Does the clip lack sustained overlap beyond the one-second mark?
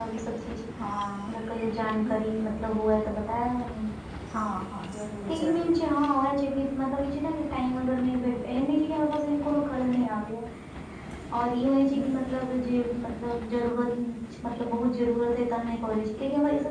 Yes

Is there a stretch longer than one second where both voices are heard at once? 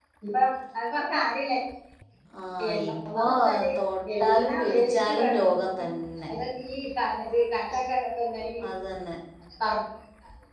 Yes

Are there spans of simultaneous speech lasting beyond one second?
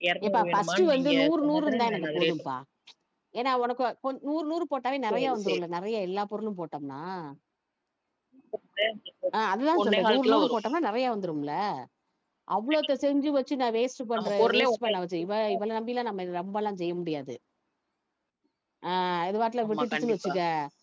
Yes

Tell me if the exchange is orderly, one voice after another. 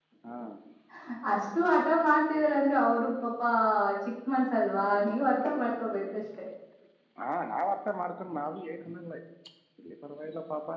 Yes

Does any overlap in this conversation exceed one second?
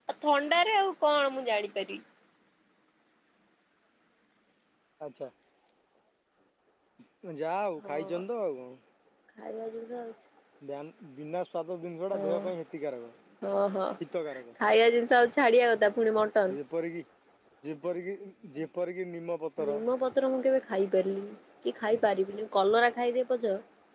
No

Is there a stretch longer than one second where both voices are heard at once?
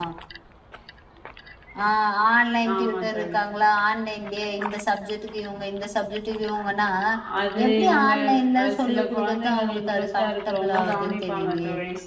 Yes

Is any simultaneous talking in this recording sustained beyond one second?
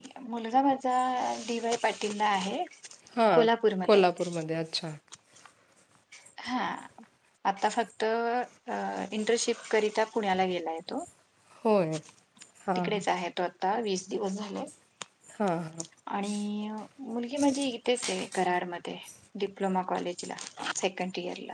No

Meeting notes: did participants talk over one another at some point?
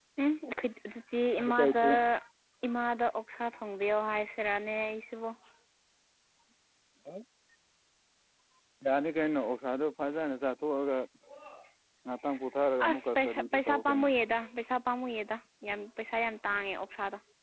Yes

